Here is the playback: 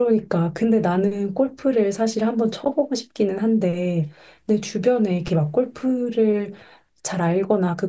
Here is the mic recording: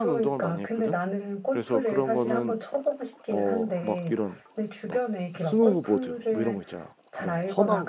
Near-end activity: present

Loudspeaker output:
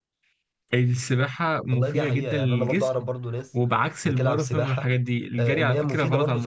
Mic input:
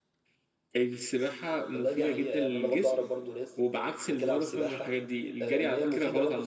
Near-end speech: none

